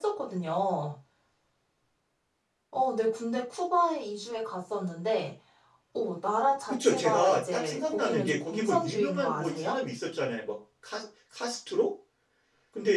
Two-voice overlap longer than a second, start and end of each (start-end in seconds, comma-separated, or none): 6.7-9.8